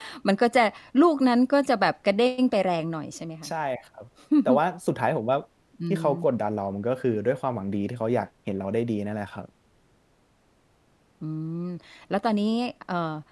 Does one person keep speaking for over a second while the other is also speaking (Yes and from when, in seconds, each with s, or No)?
No